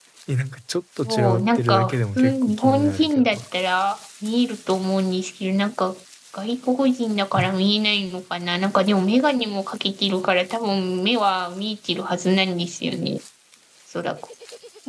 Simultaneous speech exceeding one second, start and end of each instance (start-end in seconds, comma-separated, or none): 1.1-3.4